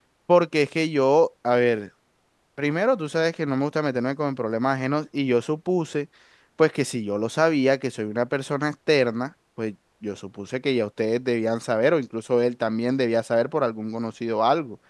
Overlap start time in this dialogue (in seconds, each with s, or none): none